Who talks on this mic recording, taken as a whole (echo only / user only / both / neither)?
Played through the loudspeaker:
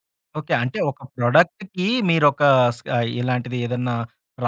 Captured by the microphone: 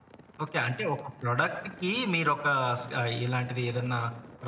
echo only